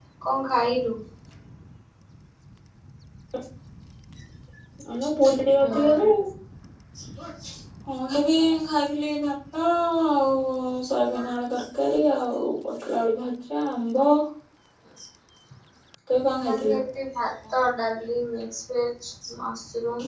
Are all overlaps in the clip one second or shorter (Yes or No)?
Yes